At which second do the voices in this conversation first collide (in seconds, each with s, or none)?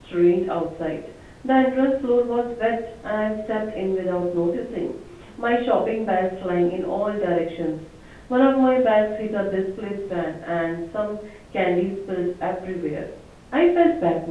none